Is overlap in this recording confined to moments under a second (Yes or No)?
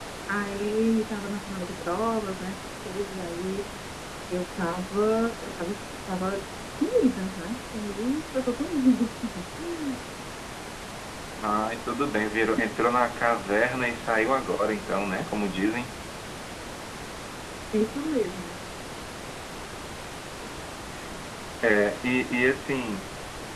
Yes